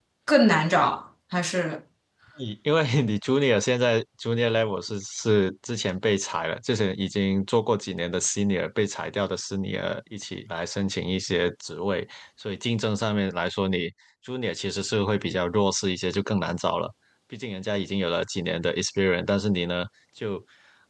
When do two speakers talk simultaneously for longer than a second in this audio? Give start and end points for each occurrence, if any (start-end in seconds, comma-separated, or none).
none